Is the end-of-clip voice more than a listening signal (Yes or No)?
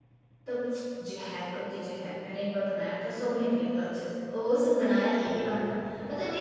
No